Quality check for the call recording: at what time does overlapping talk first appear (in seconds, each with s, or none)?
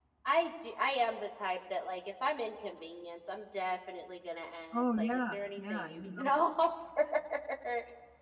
4.7 s